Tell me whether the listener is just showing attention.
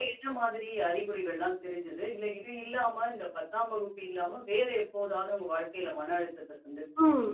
No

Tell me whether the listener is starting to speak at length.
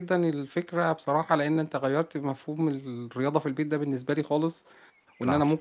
No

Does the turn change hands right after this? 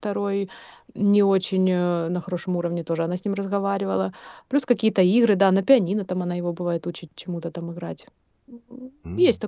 Yes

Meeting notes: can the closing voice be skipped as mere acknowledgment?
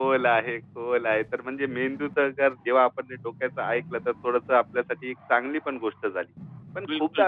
Yes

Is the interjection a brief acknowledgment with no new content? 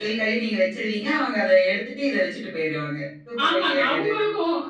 No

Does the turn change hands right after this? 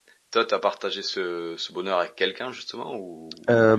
Yes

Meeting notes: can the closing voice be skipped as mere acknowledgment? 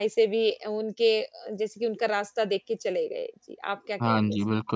No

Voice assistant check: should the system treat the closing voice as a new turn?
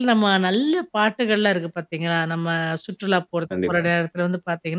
No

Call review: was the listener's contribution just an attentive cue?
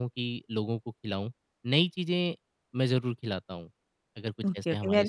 No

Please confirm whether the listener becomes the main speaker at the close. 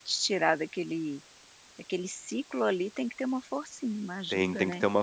Yes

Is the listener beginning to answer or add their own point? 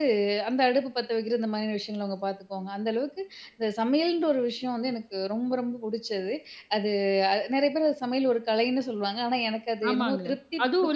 Yes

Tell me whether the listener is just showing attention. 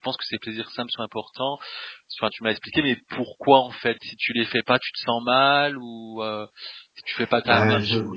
No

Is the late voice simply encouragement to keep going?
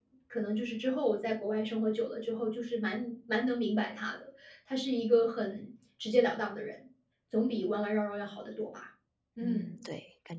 No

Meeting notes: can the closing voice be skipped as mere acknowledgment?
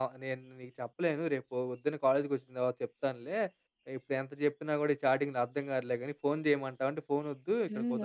No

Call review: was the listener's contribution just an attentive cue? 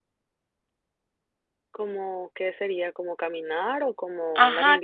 No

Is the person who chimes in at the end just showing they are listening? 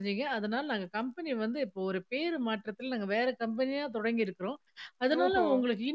Yes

